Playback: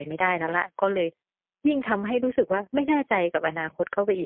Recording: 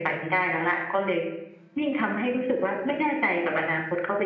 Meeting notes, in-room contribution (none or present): none